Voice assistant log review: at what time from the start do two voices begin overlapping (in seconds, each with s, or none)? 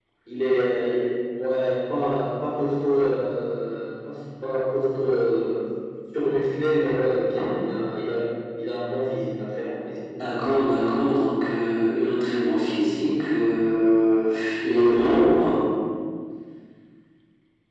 none